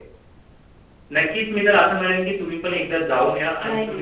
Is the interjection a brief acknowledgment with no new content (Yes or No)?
No